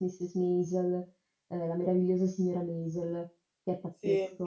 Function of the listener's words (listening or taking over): taking over